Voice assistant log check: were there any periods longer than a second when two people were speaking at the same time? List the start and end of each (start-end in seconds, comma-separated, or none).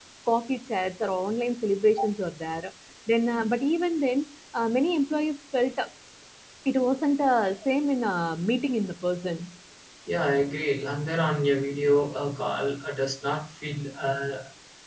none